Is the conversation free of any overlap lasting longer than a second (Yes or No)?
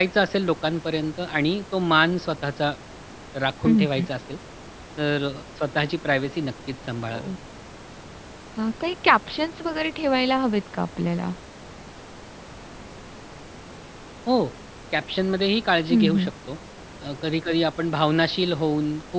Yes